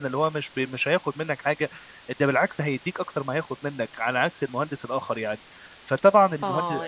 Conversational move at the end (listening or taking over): taking over